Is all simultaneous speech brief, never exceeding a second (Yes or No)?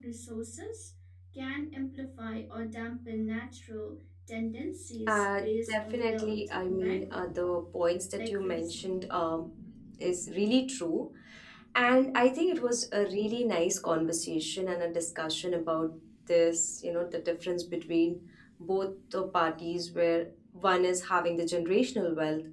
No